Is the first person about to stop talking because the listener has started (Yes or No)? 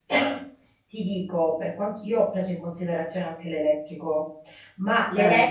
No